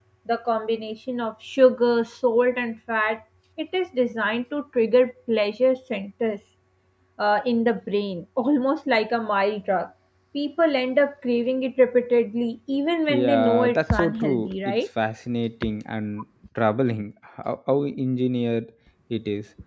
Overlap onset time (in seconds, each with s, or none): 13.1 s